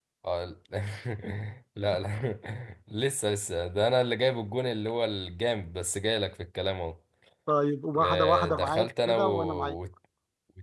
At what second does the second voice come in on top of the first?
8.0 s

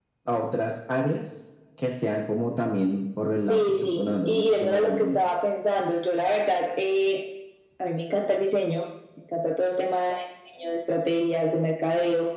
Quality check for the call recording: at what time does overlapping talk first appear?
3.5 s

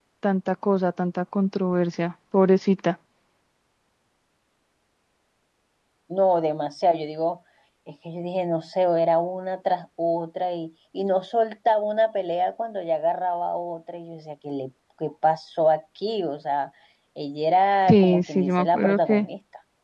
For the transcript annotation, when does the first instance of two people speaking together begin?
17.9 s

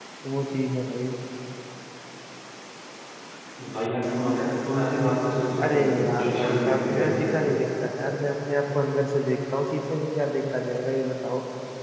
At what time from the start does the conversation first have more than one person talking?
5.6 s

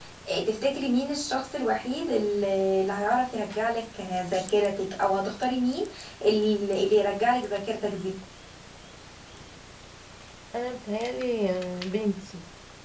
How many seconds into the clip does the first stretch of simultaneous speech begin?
none

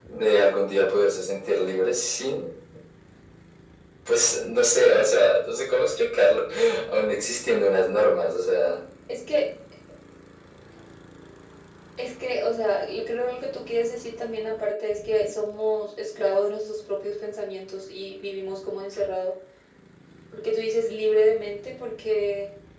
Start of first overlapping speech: none

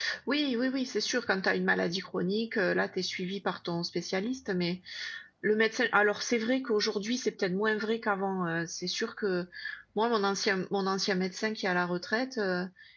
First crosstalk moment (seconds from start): none

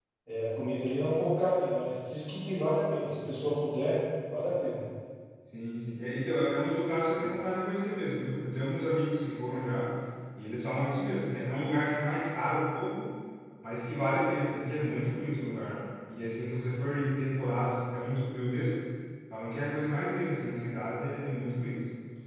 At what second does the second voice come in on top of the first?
none

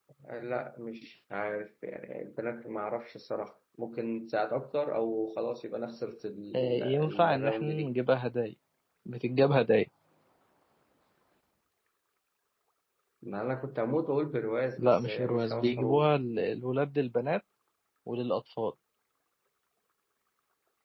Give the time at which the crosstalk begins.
6.5 s

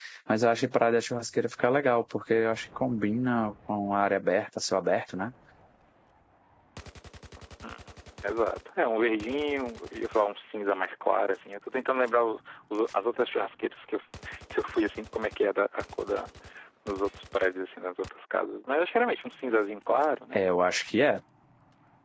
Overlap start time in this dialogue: none

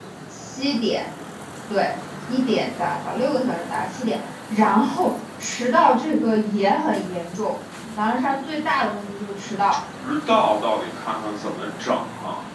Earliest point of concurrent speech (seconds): none

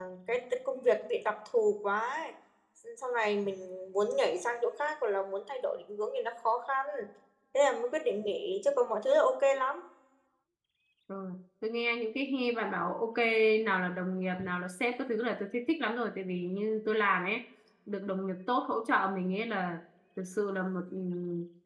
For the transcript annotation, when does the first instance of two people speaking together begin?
none

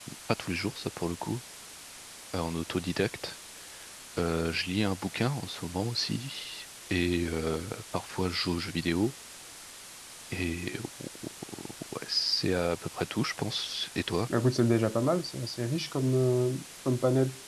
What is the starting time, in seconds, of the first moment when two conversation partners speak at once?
none

